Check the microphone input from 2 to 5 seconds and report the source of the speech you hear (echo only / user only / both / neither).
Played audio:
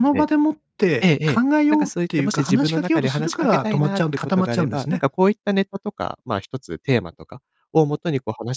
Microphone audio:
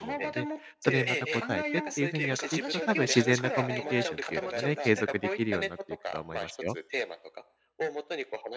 both